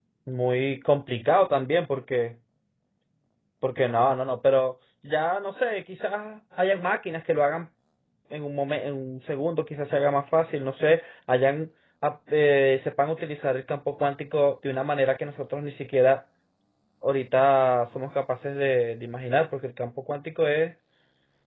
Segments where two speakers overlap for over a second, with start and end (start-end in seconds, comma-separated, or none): none